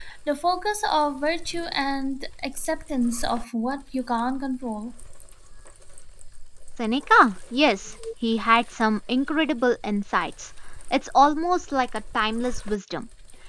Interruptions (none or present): none